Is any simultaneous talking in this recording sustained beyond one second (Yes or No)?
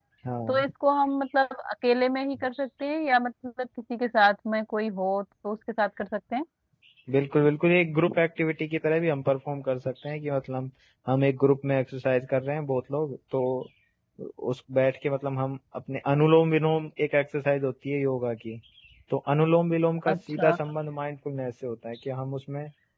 No